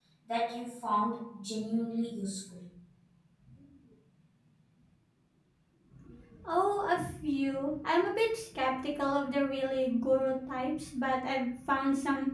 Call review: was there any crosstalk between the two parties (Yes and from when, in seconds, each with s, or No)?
No